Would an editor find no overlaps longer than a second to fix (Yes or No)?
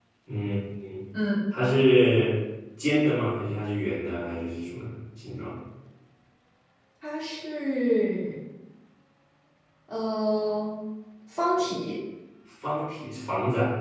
Yes